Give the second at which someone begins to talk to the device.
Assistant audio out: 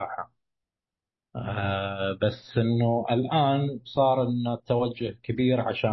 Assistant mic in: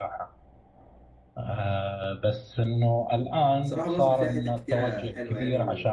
3.6 s

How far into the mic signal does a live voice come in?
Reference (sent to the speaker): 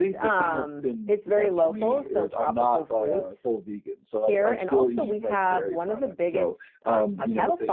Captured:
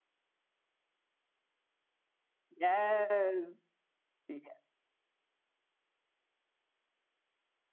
2.5 s

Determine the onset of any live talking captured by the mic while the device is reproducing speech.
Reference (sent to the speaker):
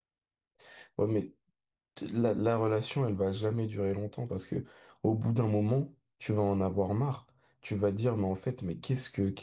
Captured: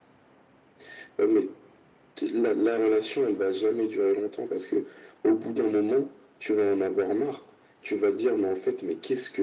none

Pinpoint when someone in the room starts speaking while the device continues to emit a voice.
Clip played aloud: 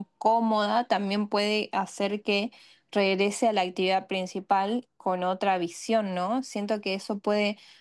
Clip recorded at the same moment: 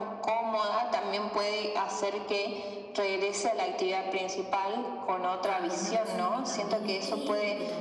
5.4 s

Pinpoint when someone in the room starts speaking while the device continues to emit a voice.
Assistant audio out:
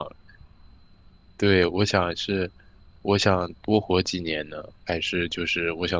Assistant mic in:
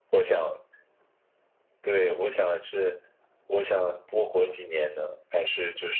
none

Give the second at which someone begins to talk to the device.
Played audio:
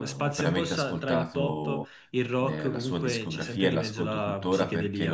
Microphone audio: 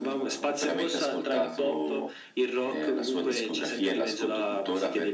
none

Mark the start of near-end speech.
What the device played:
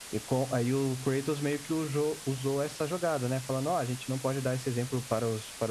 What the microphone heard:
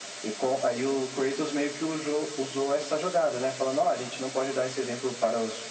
none

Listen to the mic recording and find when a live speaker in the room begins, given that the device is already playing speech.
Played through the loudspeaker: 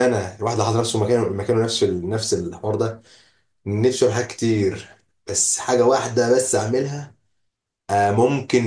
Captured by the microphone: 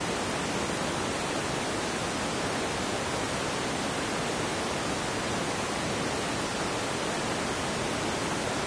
none

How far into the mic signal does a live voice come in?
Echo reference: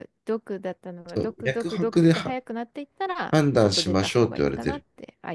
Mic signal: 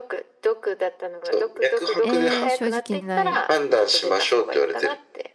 2.0 s

